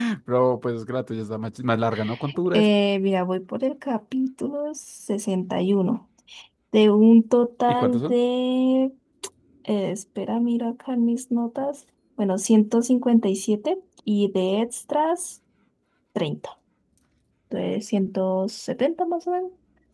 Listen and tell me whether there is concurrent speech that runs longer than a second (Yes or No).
No